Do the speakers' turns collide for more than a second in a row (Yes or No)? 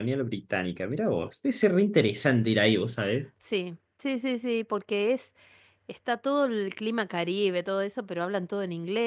No